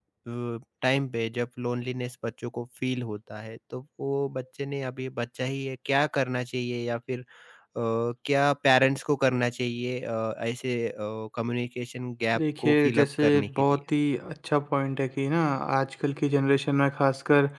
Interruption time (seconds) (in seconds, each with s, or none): 12.3 s